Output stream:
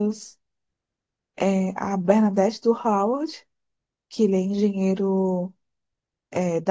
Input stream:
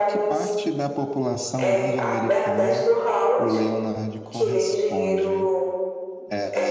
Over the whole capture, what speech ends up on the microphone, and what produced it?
both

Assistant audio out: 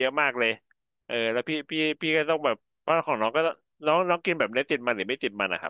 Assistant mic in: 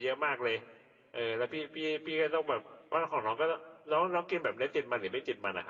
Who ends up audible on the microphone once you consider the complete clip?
echo only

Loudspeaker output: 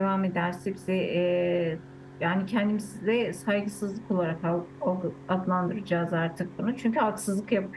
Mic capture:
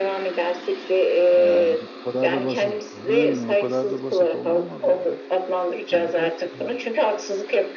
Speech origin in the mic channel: both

